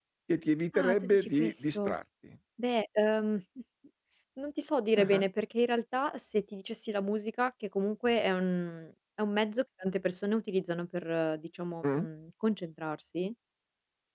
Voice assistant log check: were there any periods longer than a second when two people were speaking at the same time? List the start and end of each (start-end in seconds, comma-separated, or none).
0.7-1.9